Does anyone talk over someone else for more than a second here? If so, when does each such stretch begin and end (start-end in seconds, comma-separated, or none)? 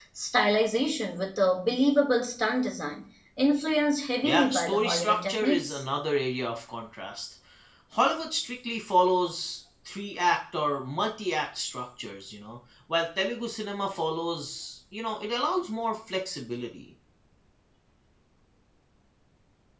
4.2-5.8